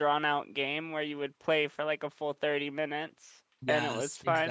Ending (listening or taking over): taking over